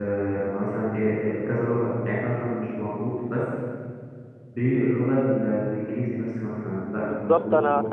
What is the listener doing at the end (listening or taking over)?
taking over